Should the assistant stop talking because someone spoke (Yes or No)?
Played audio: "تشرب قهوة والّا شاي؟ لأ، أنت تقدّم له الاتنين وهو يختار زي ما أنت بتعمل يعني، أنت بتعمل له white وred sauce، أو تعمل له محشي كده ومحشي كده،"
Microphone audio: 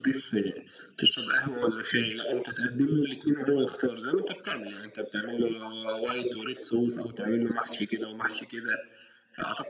No